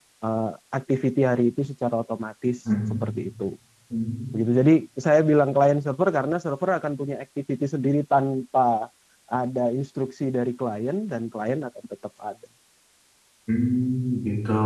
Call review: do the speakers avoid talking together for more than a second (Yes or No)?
Yes